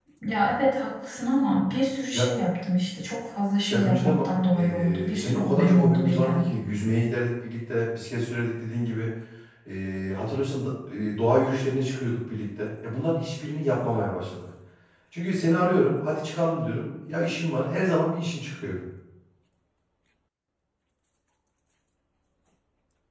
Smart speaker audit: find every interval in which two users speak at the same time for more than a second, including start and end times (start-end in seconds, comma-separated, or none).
3.7-6.5